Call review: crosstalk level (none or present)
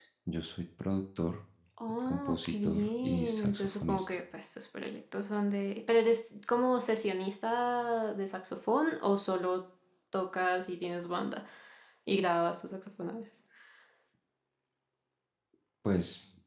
present